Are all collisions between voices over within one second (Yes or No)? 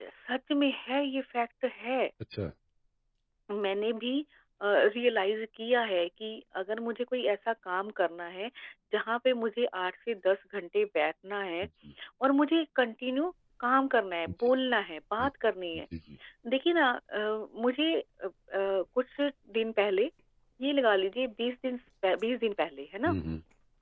Yes